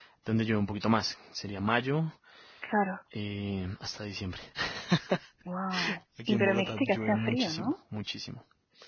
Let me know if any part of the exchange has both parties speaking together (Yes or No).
Yes